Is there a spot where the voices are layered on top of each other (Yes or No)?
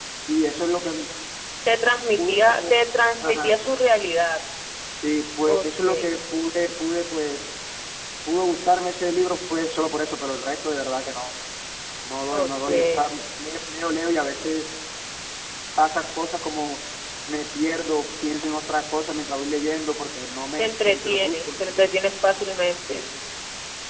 Yes